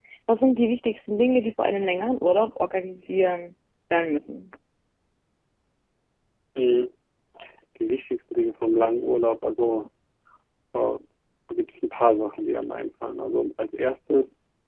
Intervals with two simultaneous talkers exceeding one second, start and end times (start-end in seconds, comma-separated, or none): none